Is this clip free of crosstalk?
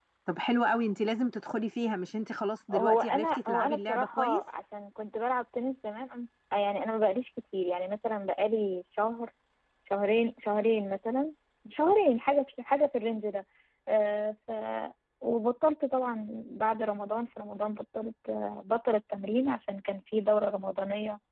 No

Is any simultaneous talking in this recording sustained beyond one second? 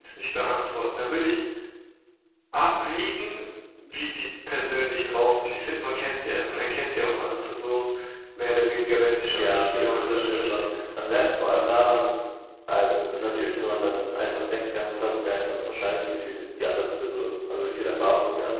Yes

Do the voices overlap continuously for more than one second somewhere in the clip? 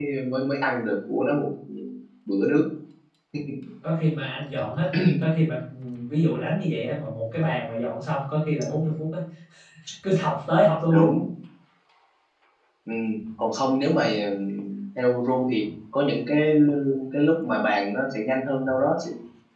No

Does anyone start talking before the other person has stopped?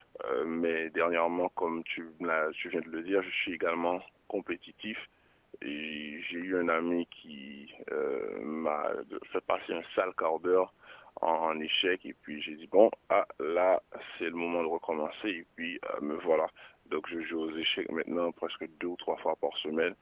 No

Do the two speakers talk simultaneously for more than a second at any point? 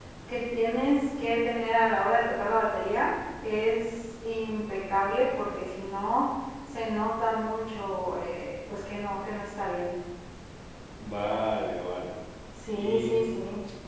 No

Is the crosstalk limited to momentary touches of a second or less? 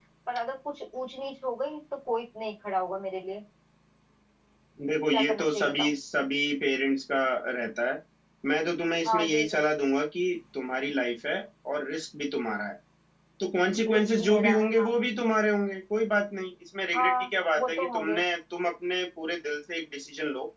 No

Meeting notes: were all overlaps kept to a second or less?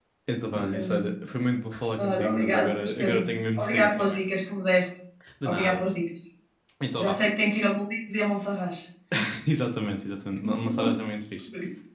No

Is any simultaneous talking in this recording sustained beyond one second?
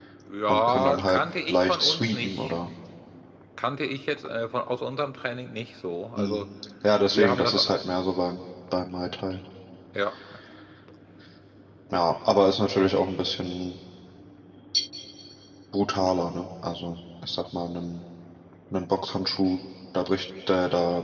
Yes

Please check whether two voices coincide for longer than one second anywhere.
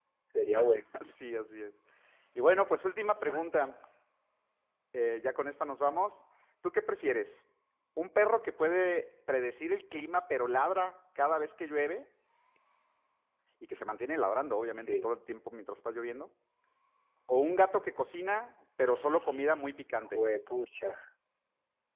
No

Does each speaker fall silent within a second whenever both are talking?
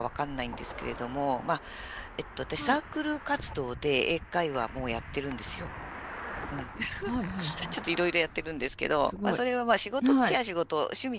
Yes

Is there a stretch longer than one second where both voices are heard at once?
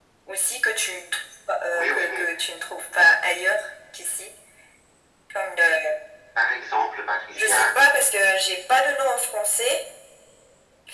No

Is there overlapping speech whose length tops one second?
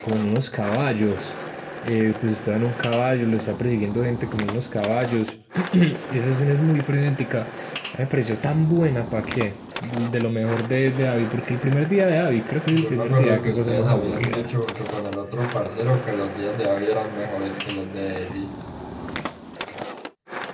Yes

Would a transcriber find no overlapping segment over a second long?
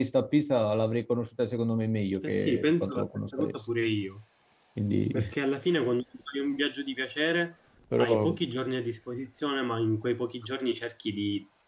No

